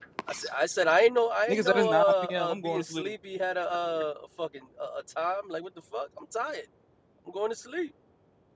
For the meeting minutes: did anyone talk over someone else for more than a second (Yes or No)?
Yes